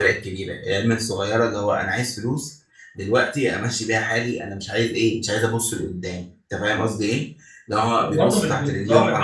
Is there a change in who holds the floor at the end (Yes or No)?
Yes